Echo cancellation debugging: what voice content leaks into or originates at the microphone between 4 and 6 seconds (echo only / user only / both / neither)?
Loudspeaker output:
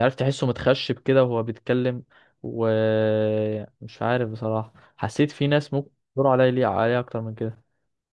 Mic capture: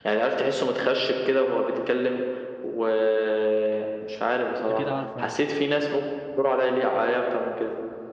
both